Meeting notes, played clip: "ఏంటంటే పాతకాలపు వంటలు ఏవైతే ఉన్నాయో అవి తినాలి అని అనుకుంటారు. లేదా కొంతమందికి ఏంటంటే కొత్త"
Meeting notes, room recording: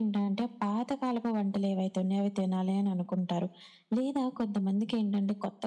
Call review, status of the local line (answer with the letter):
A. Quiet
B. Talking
A